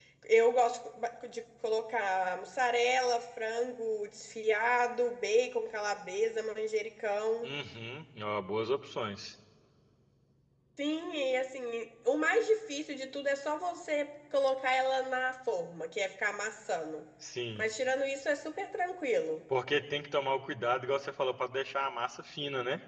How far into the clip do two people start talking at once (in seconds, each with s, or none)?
none